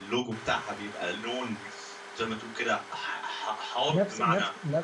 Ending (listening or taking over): taking over